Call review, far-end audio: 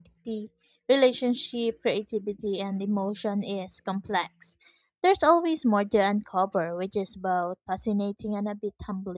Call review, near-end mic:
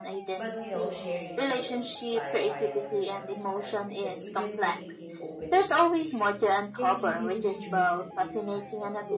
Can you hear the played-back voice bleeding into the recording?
Yes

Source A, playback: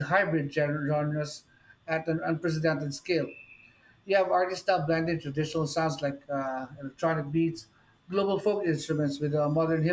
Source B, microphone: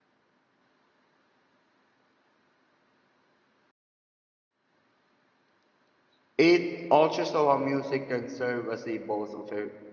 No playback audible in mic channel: Yes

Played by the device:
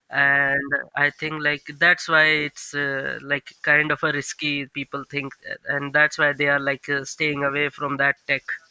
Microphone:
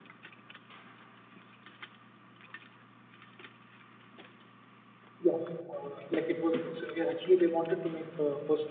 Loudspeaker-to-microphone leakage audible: No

